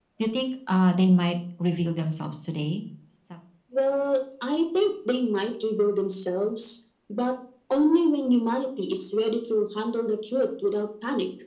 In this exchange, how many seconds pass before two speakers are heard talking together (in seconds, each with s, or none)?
none